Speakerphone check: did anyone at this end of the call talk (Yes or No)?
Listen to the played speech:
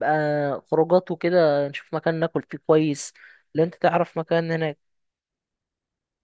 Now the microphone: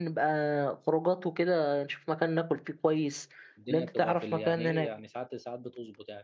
Yes